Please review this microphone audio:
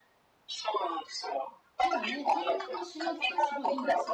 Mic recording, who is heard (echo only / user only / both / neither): both